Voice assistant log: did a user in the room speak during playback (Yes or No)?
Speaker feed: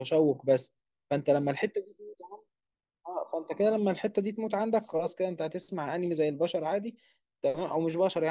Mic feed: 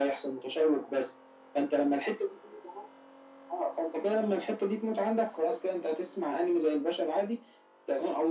No